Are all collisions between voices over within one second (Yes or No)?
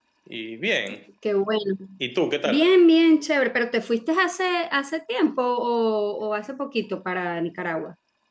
Yes